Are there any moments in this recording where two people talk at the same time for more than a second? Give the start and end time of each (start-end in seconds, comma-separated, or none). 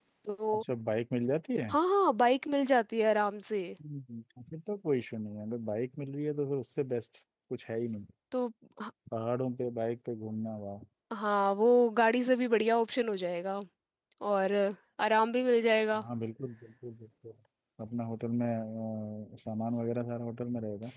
none